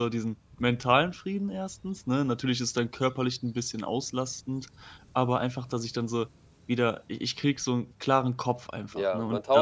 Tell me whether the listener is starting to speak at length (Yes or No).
Yes